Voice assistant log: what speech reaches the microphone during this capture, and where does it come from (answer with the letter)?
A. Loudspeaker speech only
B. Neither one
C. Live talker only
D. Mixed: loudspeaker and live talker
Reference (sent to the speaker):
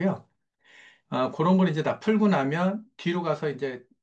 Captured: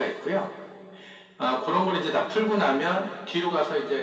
A